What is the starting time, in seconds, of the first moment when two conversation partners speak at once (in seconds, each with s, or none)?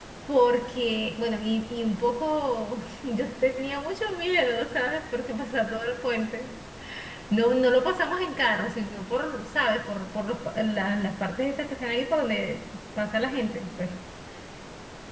none